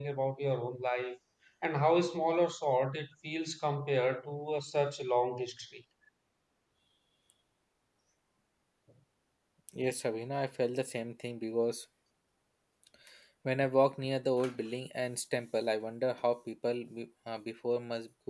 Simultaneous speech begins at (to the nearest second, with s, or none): none